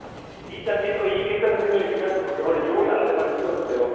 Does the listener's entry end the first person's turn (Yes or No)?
No